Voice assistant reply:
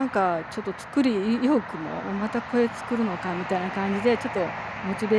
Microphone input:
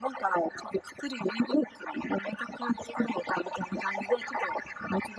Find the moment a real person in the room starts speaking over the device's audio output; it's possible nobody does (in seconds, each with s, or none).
none